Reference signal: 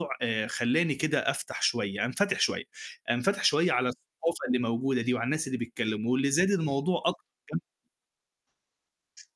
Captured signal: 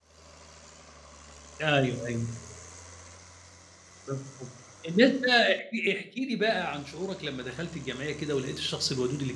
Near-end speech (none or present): present